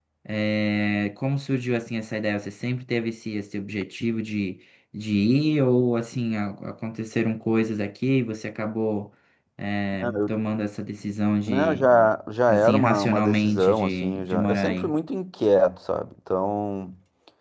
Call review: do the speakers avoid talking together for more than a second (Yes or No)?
No